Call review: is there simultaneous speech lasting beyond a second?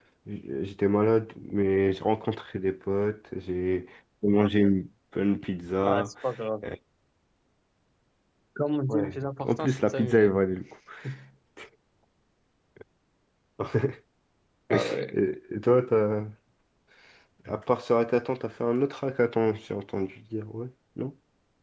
Yes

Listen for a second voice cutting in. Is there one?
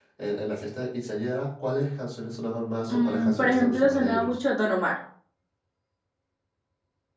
Yes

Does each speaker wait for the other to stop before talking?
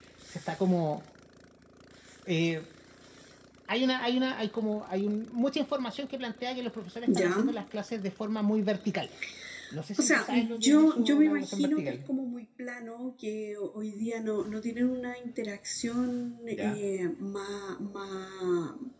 No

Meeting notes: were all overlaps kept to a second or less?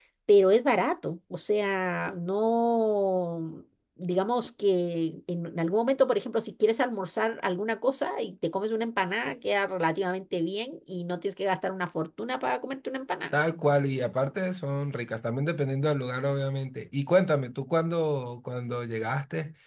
Yes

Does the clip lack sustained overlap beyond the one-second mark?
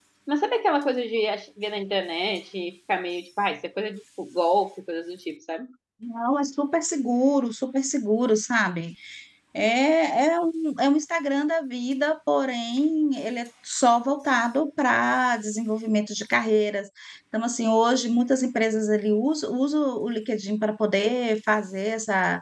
Yes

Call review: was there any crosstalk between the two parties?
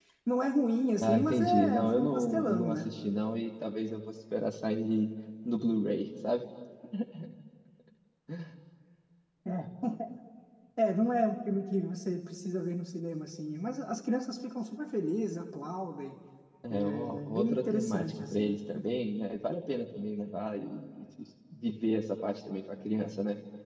Yes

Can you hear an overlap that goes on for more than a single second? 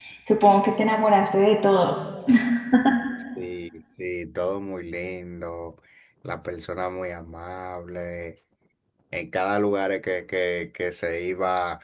No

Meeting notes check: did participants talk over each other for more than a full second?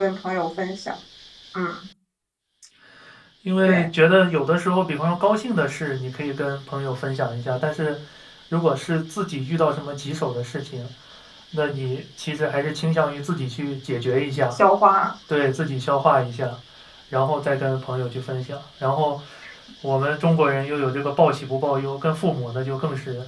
No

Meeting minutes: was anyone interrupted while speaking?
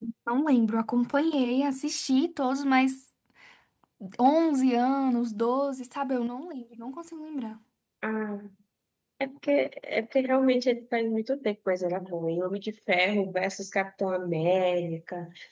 No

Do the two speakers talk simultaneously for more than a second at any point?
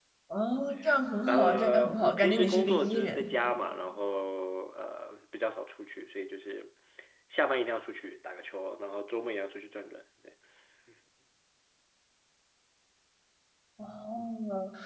Yes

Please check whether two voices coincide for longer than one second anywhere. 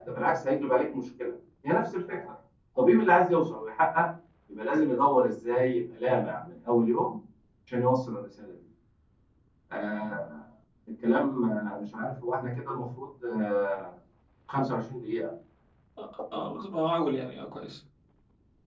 No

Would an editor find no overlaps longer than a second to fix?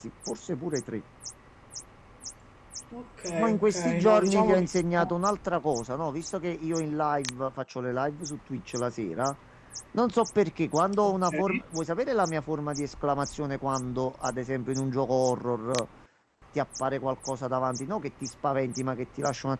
No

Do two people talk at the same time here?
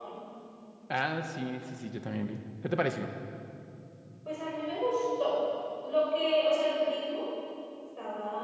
No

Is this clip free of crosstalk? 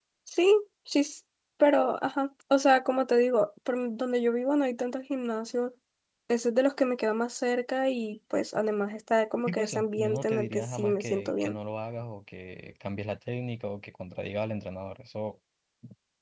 No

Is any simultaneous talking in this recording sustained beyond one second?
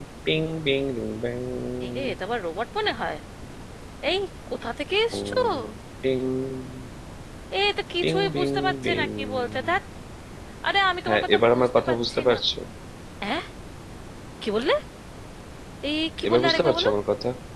Yes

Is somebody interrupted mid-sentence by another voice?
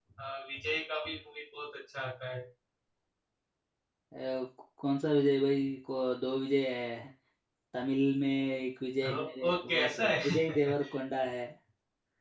Yes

